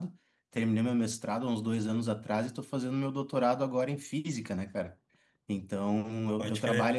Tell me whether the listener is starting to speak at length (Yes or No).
No